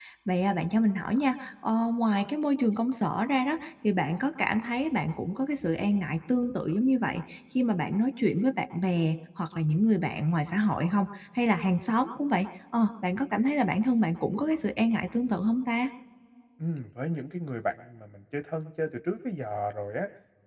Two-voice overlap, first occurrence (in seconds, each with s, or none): none